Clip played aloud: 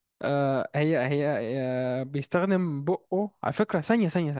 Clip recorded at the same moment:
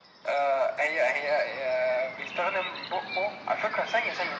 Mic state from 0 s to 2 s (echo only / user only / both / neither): echo only